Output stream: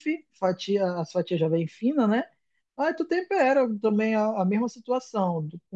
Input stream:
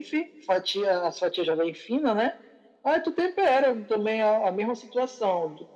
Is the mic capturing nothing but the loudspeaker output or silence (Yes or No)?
Yes